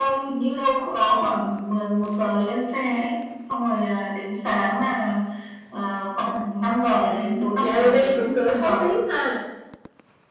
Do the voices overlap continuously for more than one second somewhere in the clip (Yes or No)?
Yes